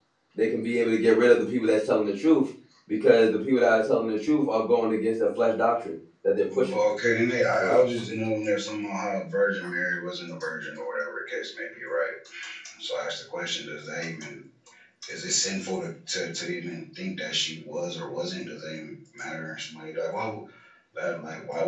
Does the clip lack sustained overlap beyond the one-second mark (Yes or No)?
Yes